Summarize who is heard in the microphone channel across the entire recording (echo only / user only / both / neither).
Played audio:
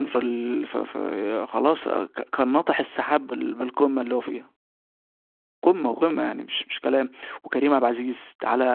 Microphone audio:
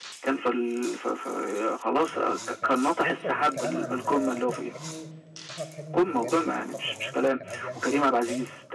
both